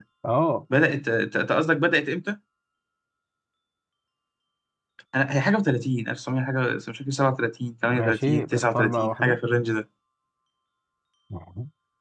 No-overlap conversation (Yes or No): No